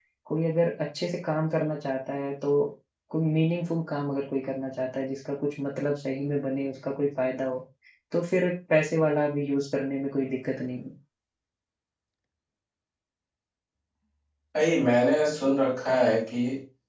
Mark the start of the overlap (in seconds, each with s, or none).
none